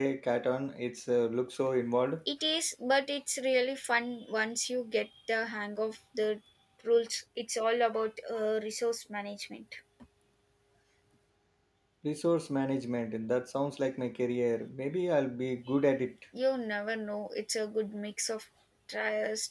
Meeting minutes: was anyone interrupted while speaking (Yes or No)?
No